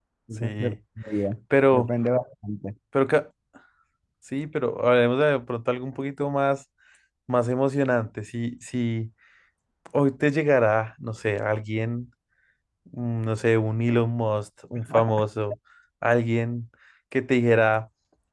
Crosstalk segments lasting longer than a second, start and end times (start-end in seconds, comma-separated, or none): none